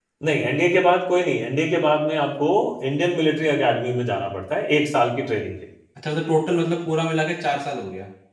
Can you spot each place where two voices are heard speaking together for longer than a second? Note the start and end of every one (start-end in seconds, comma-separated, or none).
none